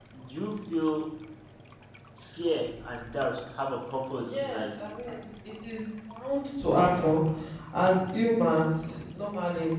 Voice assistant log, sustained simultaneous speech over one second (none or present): none